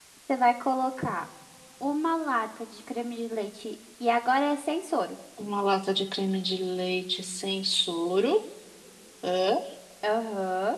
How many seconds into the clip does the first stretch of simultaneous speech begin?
none

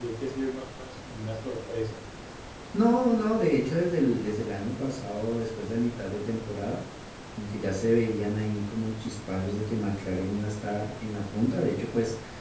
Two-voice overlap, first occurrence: none

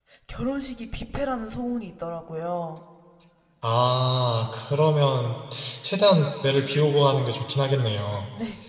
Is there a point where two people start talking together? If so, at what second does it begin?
none

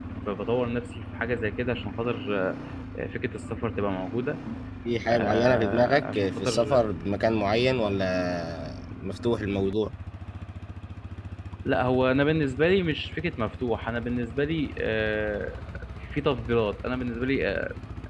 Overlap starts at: 5.1 s

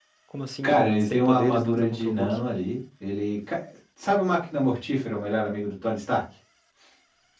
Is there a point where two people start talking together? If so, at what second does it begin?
0.6 s

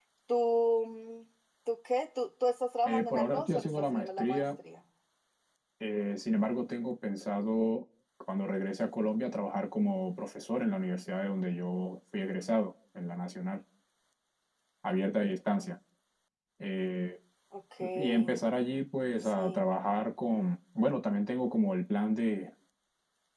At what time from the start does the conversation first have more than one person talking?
2.9 s

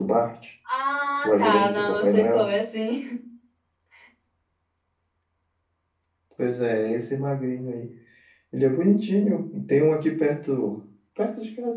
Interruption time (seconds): 1.2 s

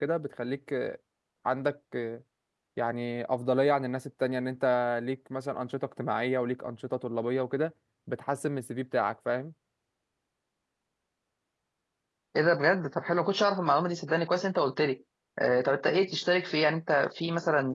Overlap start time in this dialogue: none

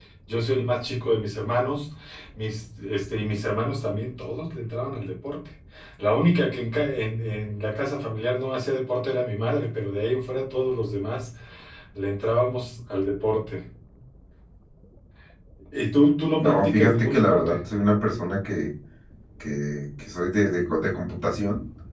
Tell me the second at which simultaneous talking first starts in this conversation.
16.4 s

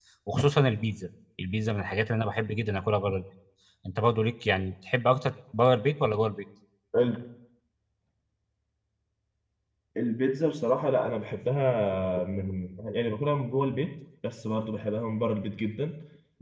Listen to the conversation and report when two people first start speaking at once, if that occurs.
none

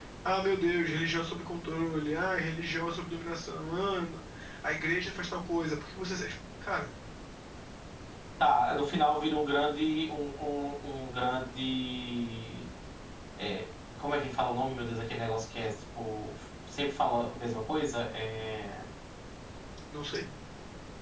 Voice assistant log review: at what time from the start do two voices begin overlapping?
none

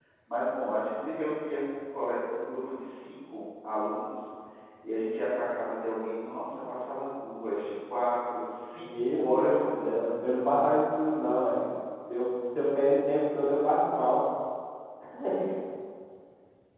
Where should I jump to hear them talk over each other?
8.8 s

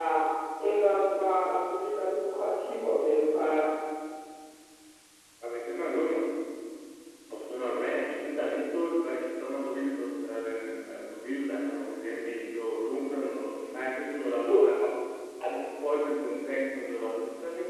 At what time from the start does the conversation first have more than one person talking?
none

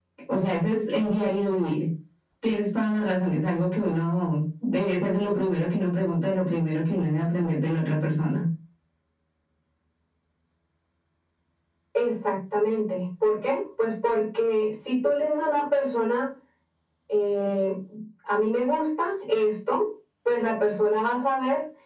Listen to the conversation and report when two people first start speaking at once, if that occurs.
none

